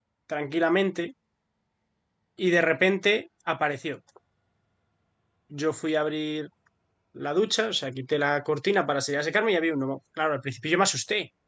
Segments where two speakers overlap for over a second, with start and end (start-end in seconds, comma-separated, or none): none